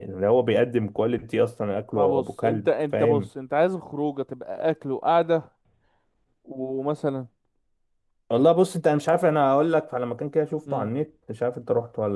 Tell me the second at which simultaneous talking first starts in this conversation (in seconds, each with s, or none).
1.9 s